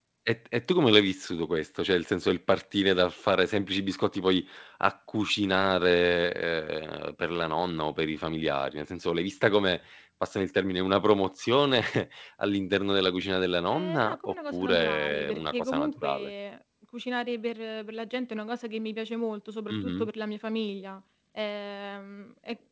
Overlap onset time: 13.7 s

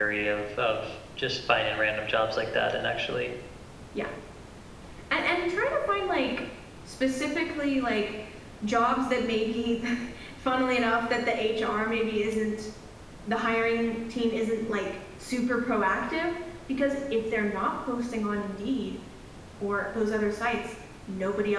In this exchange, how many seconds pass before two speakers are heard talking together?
none

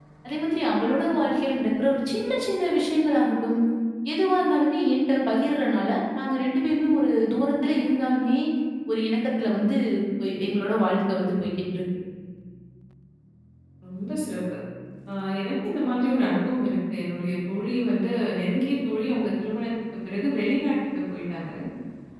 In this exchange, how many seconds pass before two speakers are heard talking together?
none

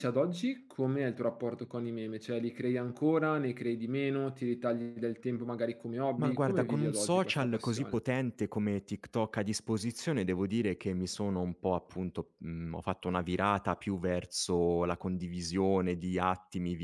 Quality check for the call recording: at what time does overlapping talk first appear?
6.2 s

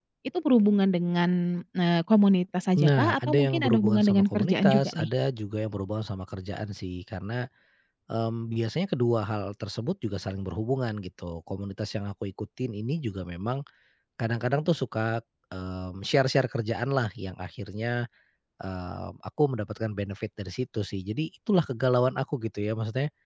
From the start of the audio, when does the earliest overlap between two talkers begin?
2.8 s

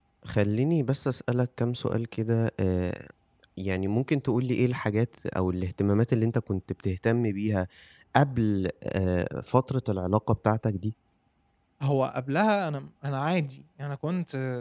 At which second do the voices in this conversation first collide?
none

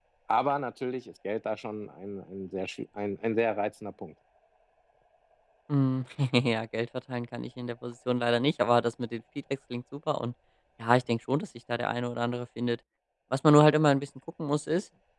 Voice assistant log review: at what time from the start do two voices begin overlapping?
none

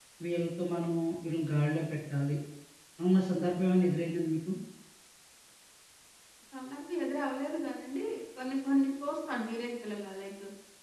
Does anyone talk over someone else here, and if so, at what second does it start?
none

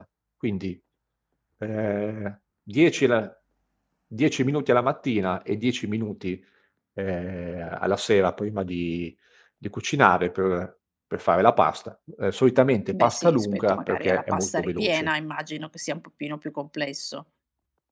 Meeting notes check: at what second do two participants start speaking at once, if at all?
12.9 s

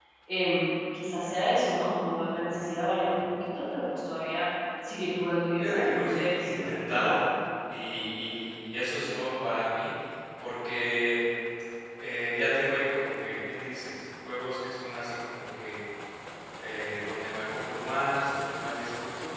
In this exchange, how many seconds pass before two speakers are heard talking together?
5.6 s

